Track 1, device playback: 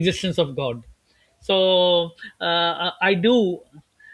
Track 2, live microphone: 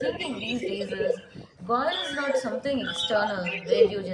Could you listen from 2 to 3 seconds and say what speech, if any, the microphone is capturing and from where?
both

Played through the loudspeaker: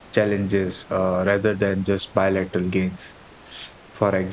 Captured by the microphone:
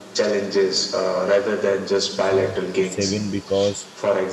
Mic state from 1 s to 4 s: both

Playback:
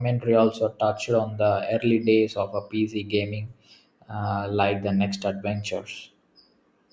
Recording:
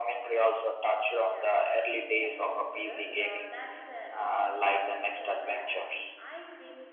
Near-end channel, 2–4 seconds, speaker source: both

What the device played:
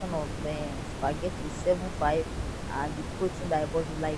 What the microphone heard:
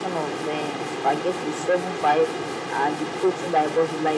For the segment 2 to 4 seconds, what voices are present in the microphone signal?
echo only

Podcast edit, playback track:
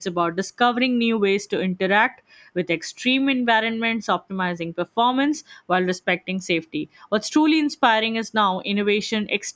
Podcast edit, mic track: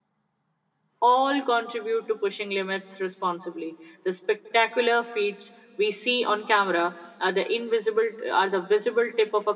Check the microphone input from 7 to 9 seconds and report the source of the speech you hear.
user only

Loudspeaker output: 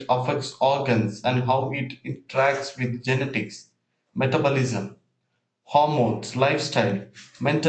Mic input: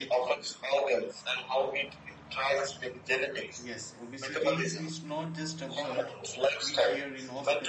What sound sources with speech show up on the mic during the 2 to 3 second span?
echo only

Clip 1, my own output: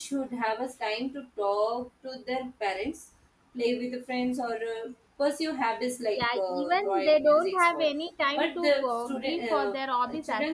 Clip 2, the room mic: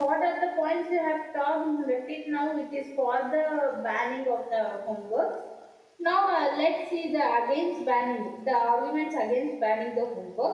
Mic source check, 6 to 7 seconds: user only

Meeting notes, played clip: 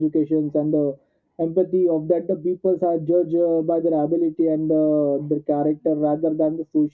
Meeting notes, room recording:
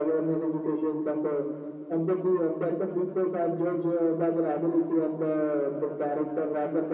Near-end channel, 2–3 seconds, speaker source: echo only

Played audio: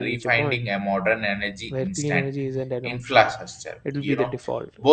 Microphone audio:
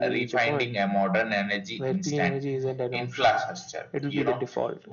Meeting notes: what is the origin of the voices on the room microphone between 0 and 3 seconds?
echo only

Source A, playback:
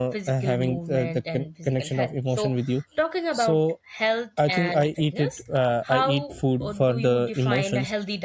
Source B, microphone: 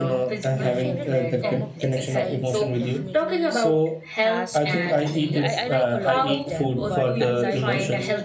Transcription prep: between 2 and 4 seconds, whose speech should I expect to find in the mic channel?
both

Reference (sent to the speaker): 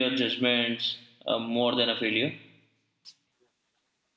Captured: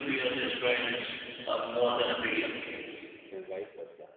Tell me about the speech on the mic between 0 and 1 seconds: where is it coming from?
echo only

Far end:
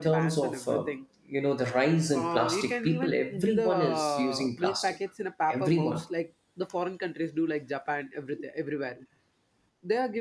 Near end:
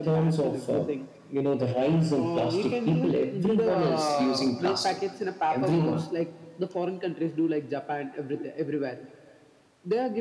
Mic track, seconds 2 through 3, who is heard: echo only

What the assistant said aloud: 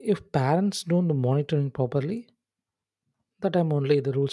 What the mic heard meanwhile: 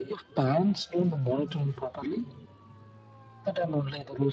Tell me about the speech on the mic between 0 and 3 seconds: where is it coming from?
echo only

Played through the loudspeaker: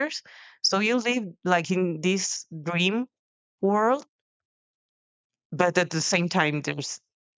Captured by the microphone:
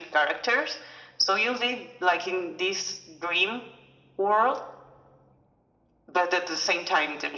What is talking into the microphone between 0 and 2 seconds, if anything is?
echo only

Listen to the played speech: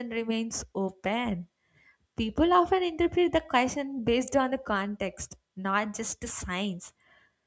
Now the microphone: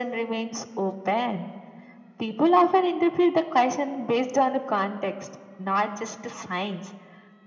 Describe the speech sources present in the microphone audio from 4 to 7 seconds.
echo only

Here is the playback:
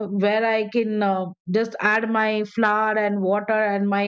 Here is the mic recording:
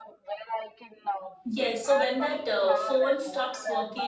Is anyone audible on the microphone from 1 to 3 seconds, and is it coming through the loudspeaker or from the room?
both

